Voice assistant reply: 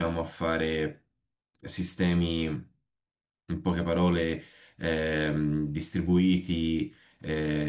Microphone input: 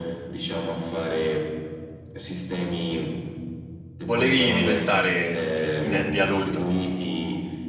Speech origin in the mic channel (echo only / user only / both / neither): both